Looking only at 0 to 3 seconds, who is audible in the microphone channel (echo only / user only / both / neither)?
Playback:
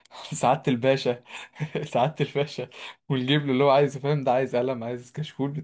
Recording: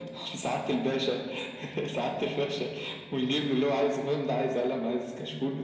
echo only